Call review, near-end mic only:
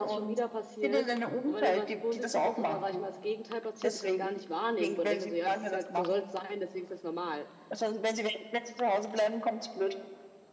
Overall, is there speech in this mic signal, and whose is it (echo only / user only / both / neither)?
both